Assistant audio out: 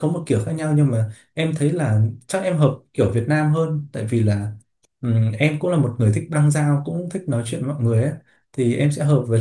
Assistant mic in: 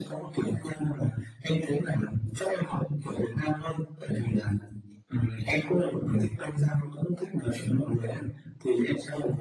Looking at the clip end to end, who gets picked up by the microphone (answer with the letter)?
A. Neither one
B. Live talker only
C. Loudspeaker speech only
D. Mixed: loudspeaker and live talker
C